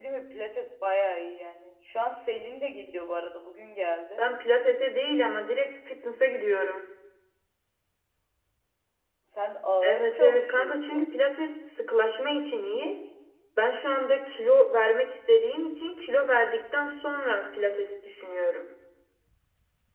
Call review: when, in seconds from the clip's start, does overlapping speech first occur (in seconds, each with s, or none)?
9.8 s